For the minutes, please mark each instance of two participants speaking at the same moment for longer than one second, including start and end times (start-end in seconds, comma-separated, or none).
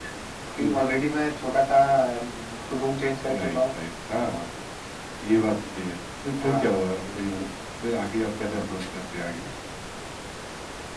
none